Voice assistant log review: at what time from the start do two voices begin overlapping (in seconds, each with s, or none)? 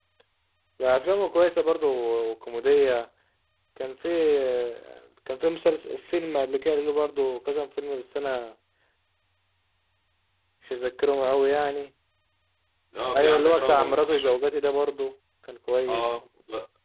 13.2 s